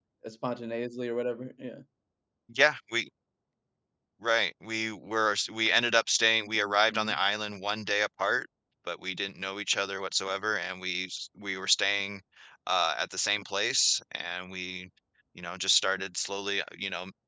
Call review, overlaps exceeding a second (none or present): none